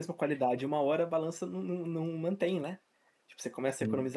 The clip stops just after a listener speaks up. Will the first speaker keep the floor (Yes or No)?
Yes